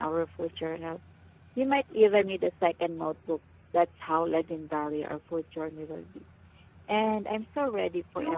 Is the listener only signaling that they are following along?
No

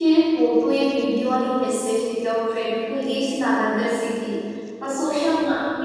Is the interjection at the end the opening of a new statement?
No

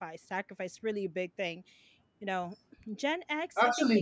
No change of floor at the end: No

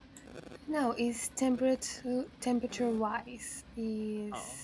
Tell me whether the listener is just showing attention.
Yes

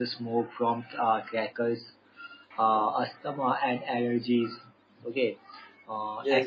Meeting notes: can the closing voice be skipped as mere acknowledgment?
No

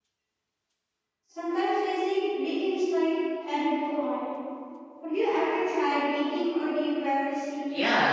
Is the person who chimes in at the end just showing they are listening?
No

